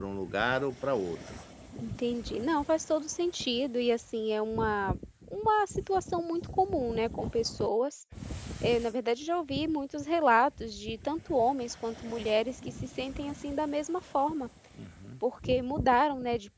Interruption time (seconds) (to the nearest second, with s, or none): none